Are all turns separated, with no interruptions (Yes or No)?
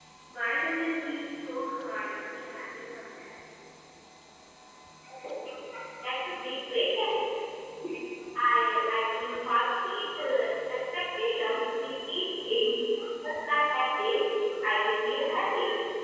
Yes